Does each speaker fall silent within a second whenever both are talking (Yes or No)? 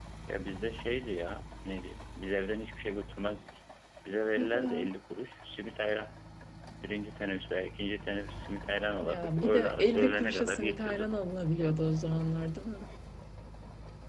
No